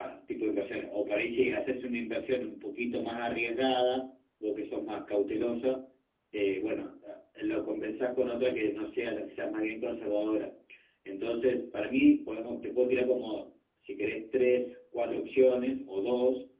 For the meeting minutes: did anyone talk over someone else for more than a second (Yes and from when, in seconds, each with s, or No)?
No